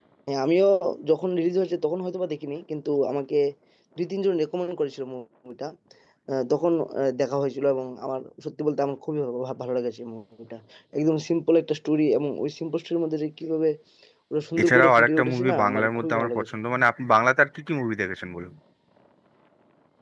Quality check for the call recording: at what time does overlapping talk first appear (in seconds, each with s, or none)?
14.6 s